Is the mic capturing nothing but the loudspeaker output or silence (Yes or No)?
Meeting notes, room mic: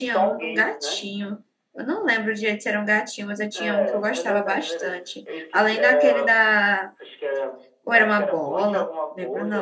No